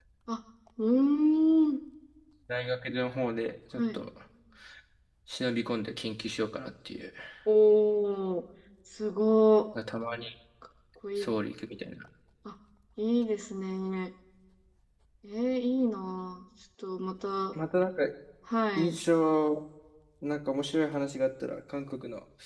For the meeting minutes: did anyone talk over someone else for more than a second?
No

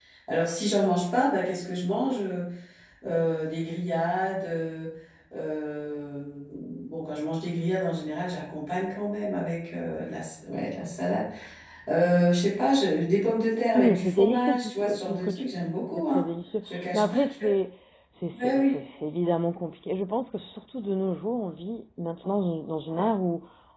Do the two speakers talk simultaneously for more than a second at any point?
Yes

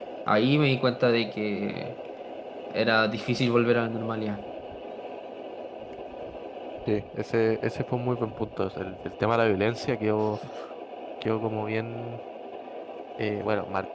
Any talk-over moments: No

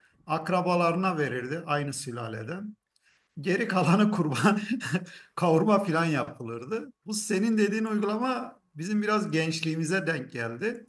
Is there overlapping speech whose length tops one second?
No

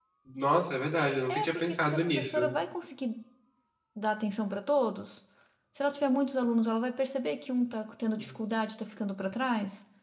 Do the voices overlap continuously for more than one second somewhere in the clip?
Yes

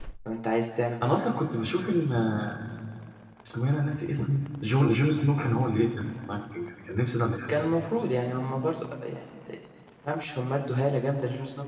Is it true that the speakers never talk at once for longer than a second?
Yes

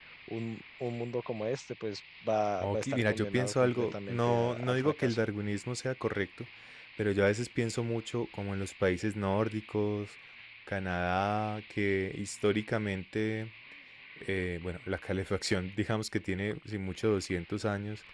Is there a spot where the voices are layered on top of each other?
Yes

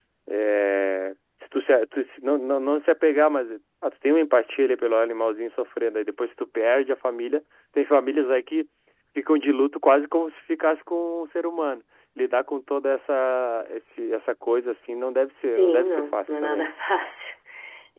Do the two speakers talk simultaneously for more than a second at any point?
Yes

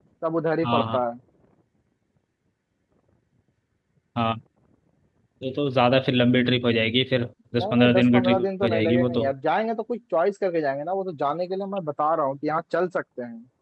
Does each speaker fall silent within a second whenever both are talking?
No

